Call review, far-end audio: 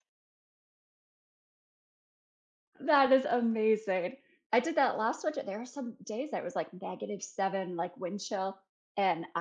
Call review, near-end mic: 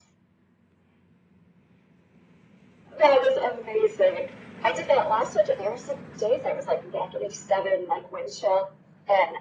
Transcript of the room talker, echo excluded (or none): none